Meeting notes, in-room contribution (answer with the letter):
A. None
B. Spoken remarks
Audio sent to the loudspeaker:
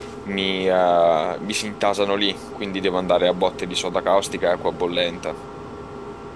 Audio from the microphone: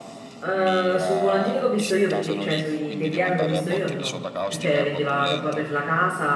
B